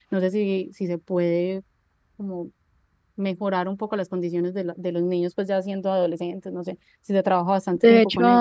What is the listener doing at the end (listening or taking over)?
taking over